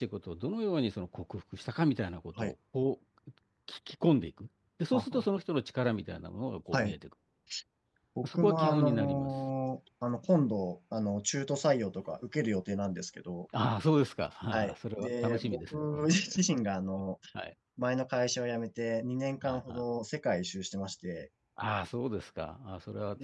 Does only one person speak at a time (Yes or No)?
No